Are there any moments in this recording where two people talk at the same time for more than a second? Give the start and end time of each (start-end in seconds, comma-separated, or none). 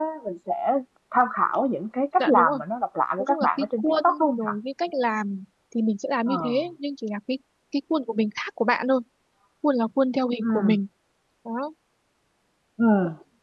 3.2-4.5